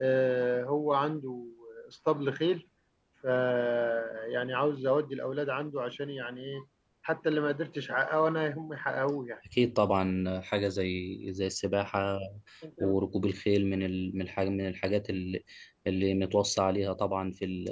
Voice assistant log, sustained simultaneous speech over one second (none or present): none